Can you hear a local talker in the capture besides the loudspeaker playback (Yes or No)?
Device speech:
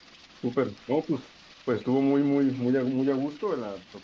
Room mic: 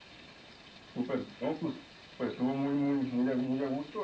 No